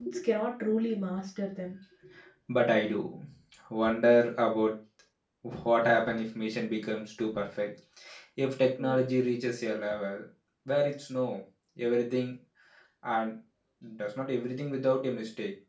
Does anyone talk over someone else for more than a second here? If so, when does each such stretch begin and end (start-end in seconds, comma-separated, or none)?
none